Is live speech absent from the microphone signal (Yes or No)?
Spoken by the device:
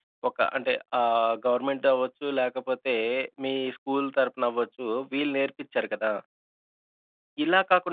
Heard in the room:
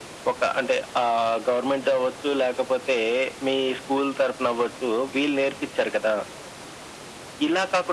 Yes